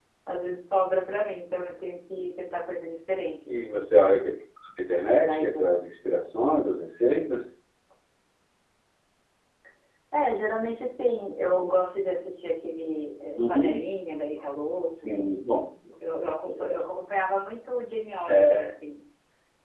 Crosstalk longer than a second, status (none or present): none